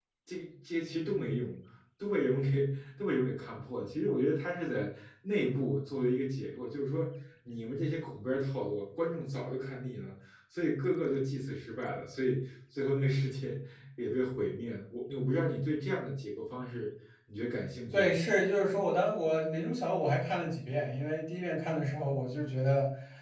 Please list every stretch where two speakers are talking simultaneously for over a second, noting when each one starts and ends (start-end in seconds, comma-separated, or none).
none